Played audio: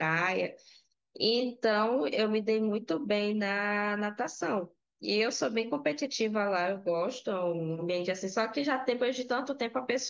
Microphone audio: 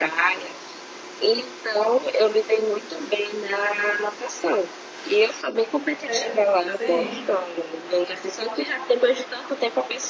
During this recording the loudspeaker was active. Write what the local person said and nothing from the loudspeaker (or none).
Deus, sim.